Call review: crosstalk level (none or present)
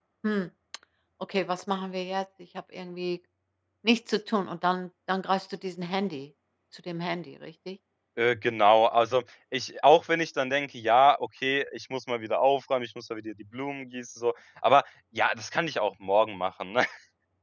none